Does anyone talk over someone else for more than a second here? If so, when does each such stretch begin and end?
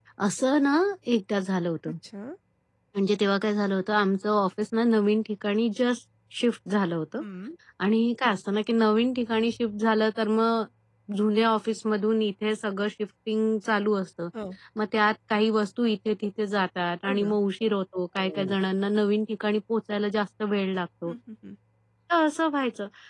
none

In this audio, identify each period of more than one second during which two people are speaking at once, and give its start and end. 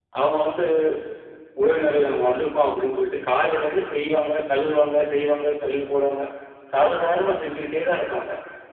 none

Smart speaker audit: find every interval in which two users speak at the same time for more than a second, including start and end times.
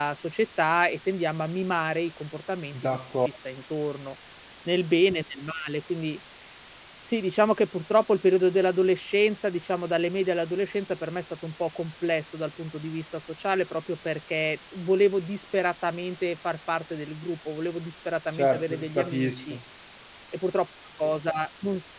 18.3-19.6

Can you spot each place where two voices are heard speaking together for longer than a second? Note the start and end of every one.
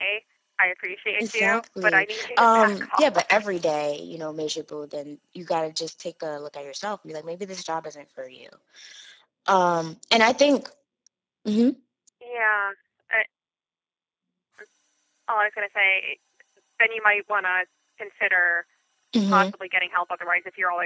1.2-3.4

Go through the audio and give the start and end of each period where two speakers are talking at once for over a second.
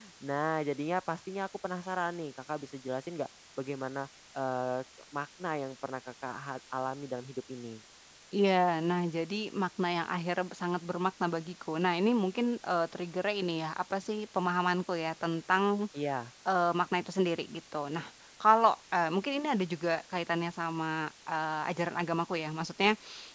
none

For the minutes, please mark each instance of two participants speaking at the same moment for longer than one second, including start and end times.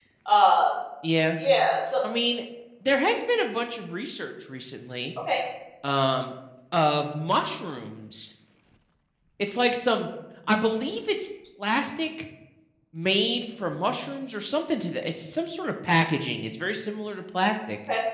none

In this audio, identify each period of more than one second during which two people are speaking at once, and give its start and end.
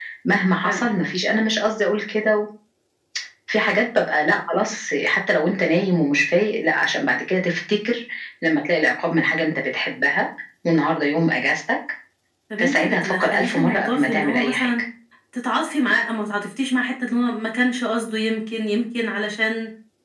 12.6-14.7

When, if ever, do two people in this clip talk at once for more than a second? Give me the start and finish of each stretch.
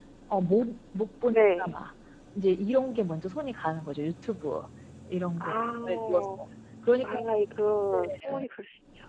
none

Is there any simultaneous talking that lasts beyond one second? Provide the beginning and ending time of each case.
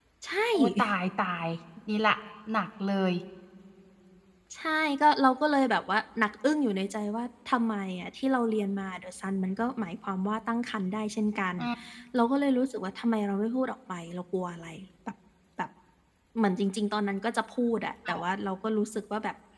none

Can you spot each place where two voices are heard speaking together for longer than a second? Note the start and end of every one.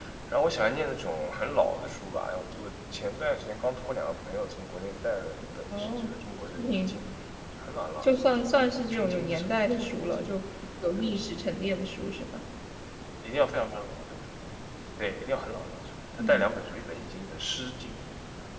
8.9-10.3

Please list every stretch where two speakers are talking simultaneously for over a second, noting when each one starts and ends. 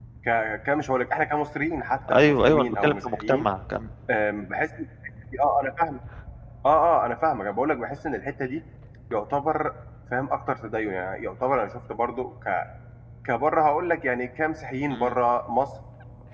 2.1-3.5

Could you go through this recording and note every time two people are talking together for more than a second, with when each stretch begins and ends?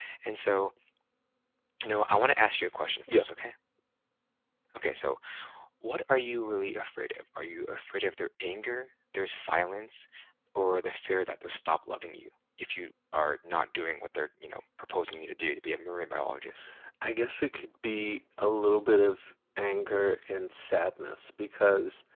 none

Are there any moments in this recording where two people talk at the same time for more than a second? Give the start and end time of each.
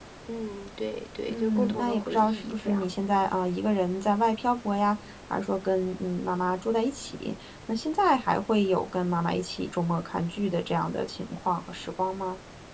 1.3-3.3

